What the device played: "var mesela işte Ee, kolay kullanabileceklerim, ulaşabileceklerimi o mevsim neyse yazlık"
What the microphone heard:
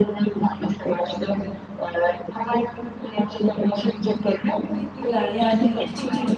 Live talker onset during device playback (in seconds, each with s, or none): 4.6 s